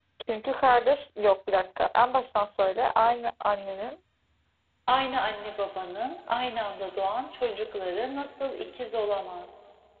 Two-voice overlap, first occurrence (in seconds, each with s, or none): none